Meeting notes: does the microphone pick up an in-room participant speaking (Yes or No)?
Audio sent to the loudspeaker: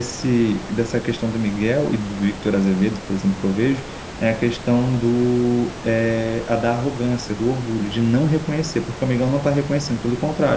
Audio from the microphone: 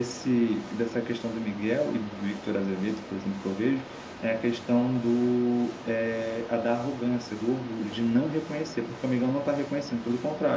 No